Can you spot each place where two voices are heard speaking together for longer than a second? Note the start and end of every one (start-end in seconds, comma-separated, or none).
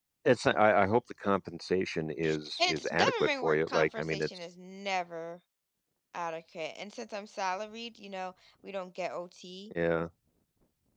2.6-4.3